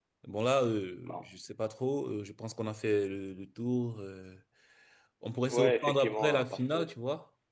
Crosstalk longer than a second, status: present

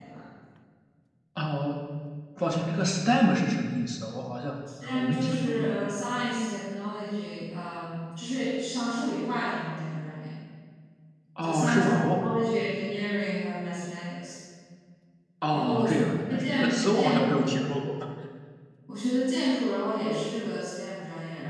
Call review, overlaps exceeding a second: present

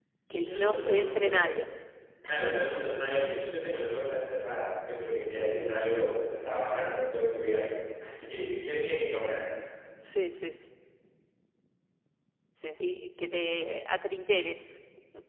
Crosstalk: present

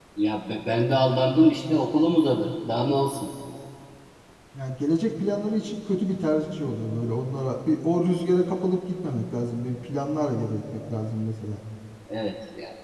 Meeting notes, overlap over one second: none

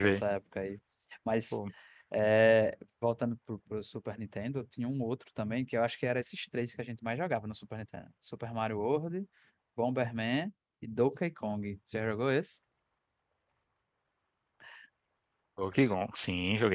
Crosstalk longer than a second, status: none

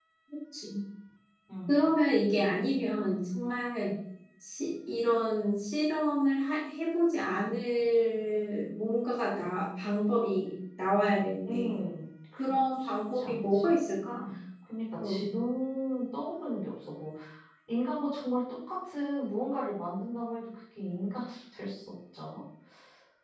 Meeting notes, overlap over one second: present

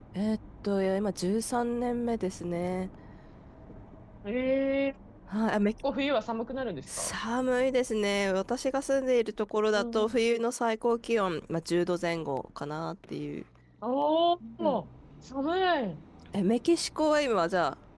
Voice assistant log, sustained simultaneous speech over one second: none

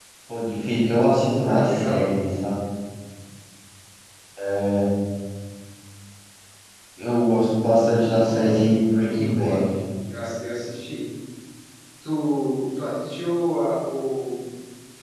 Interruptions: present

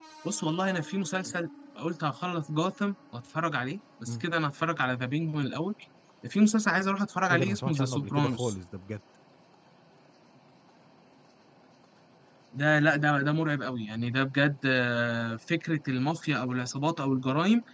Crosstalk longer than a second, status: present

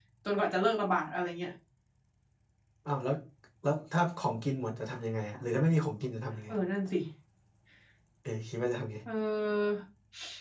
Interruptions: none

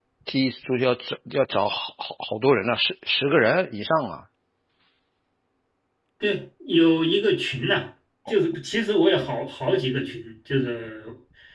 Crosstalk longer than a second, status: none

